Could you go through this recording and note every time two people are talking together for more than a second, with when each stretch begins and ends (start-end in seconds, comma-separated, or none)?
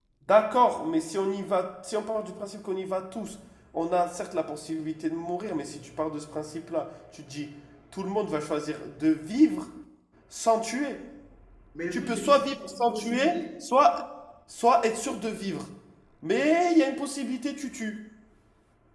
11.9-13.5